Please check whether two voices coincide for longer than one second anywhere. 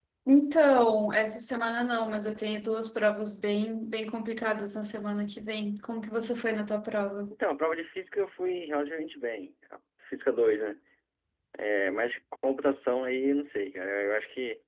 No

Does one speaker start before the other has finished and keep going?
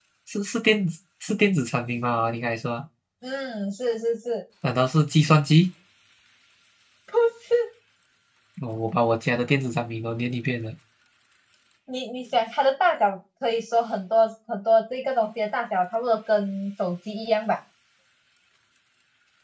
No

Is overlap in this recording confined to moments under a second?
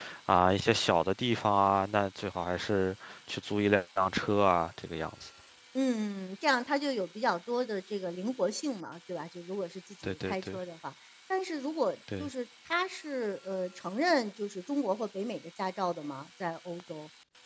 Yes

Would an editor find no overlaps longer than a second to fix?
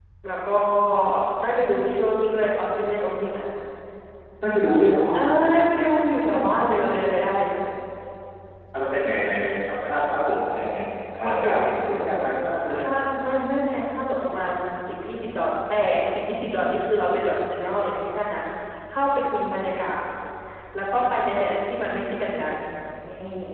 Yes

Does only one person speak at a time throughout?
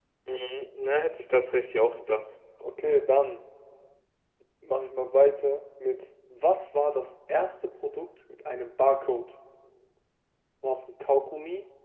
Yes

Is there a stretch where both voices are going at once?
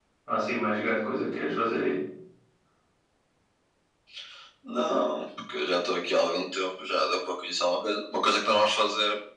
No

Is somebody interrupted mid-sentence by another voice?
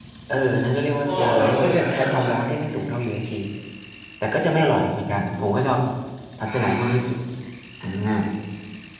Yes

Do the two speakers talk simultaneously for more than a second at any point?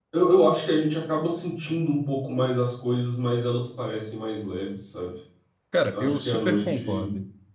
Yes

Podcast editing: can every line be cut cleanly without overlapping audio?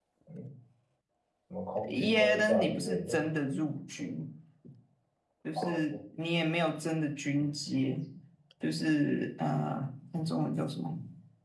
No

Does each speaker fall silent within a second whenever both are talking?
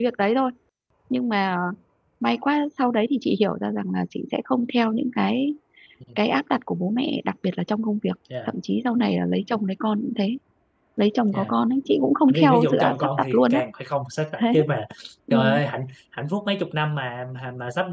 No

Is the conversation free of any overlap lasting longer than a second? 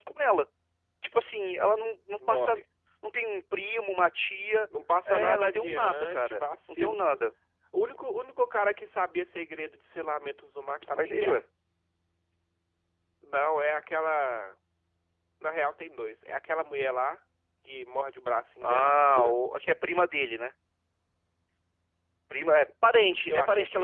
No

